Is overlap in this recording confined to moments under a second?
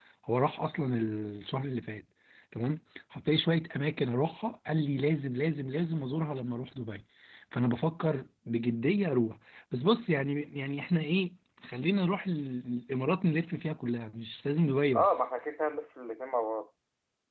Yes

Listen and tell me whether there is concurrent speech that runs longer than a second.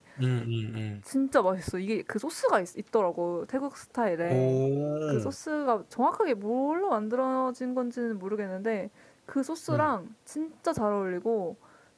No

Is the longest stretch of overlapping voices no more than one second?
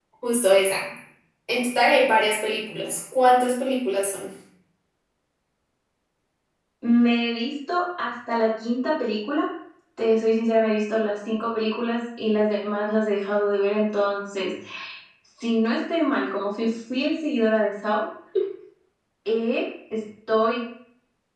Yes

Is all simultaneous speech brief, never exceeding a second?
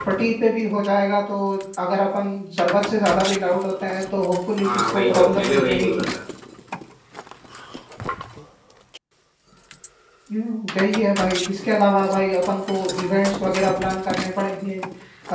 No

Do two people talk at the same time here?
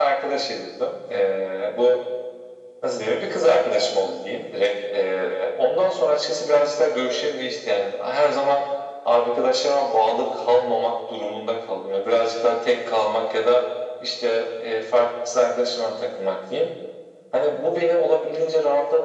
No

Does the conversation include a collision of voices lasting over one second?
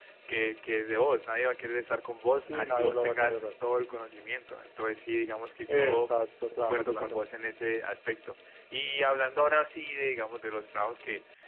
Yes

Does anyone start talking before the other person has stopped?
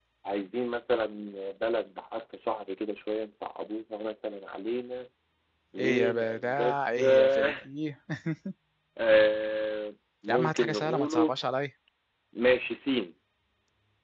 Yes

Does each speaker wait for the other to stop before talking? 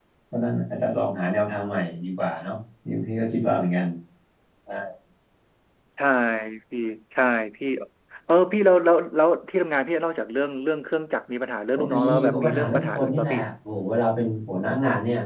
No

